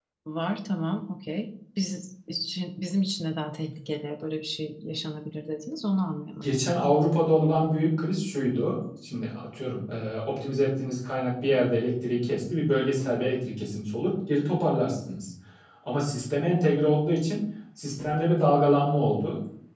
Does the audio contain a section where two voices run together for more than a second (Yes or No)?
No